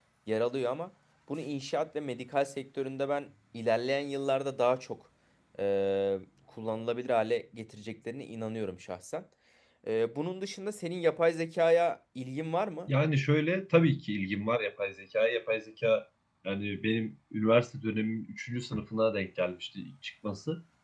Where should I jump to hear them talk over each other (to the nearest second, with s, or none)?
none